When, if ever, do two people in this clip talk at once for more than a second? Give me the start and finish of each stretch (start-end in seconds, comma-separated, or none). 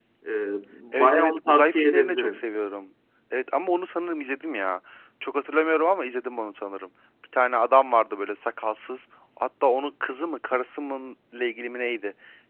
0.9-2.5